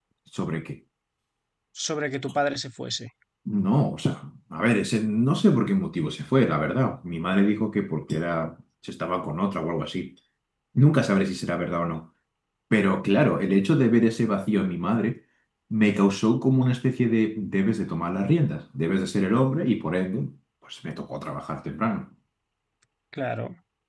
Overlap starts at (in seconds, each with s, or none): none